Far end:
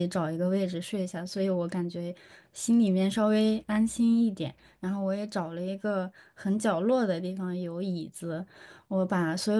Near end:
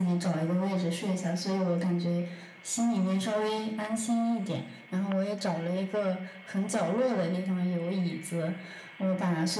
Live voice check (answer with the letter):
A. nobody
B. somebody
A